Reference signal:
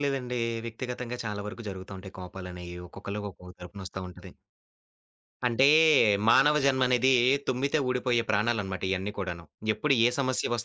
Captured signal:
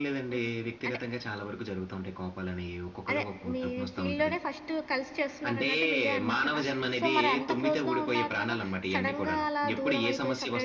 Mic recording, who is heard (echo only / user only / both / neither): both